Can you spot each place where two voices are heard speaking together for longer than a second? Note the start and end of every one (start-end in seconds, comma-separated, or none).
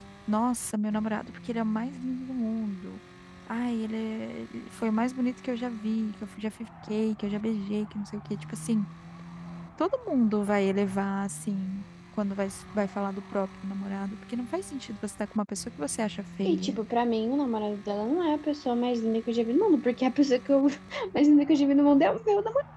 none